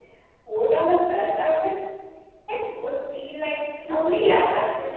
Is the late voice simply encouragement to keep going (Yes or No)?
No